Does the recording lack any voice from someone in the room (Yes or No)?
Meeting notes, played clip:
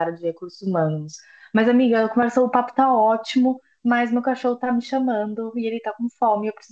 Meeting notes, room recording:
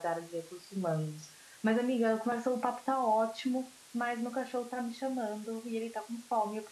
Yes